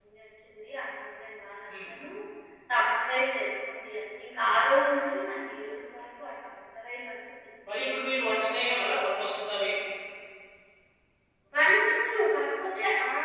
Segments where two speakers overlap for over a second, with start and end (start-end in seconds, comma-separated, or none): none